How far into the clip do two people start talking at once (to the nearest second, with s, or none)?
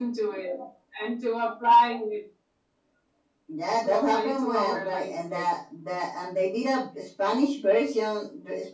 4 s